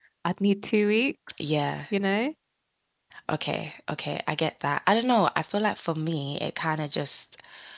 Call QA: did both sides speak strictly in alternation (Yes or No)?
Yes